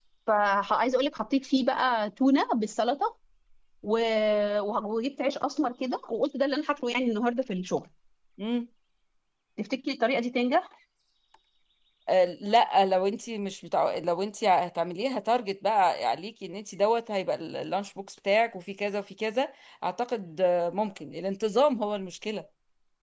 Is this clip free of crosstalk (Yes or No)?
Yes